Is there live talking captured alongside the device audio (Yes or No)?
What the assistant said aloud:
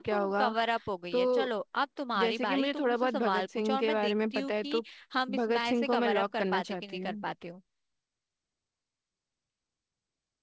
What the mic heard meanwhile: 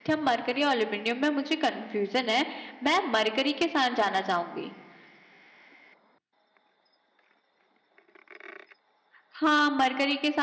Yes